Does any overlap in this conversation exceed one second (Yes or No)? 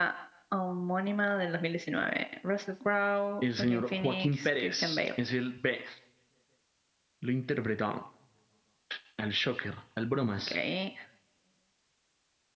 Yes